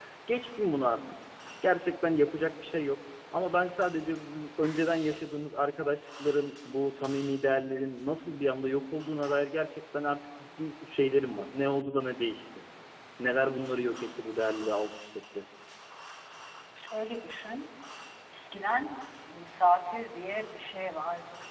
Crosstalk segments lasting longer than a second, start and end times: none

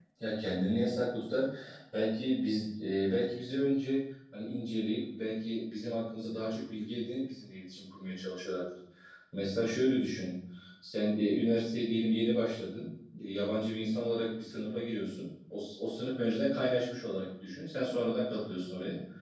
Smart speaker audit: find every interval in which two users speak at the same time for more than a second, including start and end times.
none

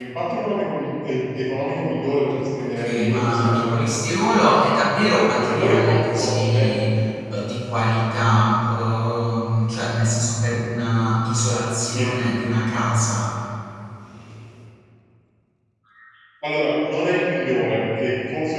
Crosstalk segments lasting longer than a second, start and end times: 2.6-4.0, 5.4-6.9

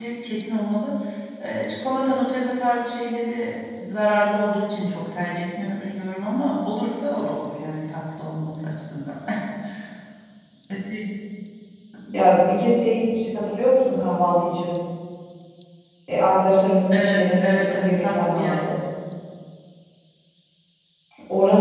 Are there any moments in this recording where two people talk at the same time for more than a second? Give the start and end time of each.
16.9-18.8

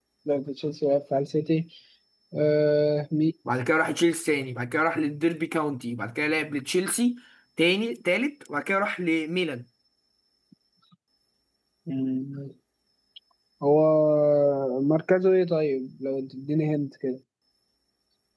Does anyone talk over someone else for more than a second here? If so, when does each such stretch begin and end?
none

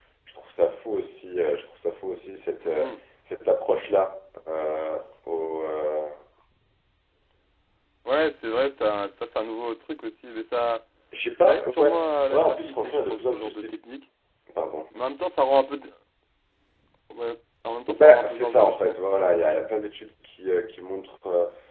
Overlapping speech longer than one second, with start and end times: 11.5-13.8, 17.9-19.2

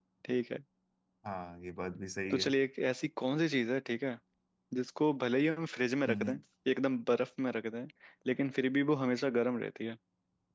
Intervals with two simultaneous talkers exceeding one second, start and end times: none

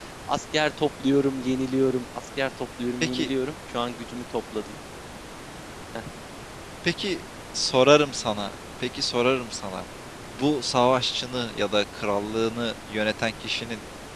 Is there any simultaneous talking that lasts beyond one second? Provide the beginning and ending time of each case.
none

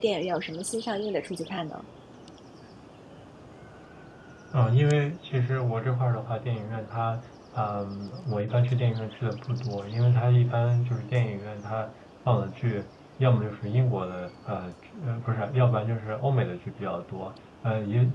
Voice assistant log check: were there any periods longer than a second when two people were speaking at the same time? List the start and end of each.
none

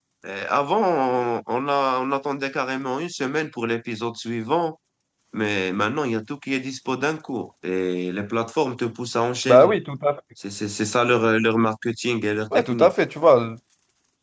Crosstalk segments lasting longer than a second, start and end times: none

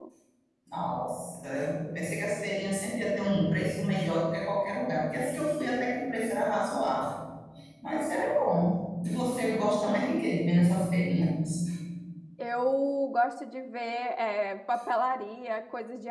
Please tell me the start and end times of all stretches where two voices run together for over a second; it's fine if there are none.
none

